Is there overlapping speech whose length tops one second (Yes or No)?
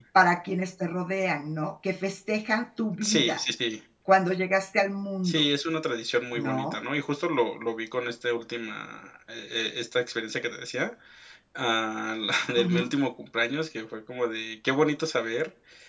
No